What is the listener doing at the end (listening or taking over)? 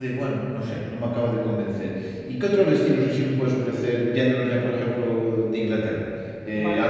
listening